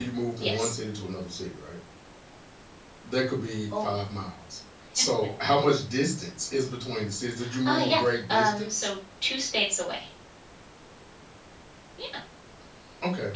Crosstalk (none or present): present